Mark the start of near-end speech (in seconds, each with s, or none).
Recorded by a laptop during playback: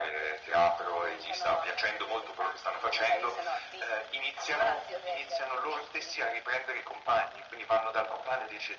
none